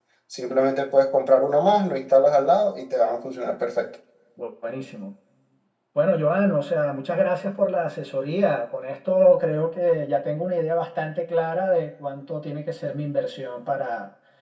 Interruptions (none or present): none